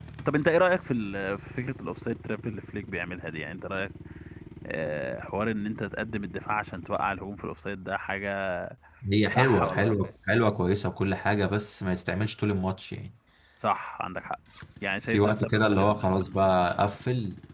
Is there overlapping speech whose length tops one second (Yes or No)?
Yes